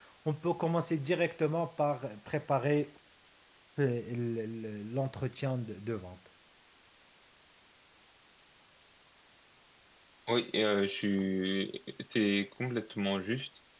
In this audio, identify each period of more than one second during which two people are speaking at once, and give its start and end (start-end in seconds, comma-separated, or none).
none